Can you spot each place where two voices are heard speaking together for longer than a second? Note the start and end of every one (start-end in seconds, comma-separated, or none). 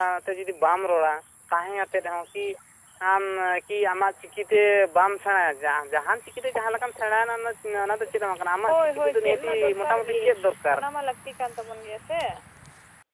8.7-10.2